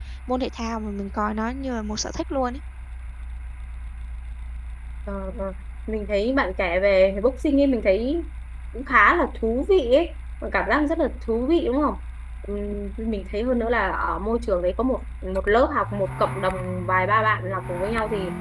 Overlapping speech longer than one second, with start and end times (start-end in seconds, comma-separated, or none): none